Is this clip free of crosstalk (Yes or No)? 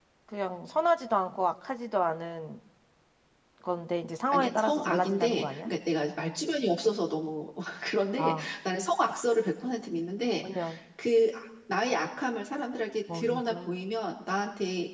No